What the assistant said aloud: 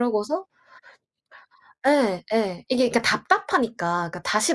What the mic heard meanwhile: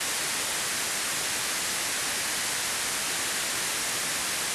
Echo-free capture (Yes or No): Yes